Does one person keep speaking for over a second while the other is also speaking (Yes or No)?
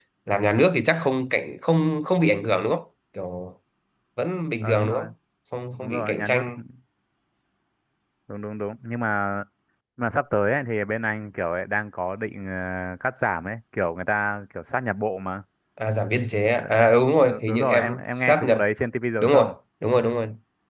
Yes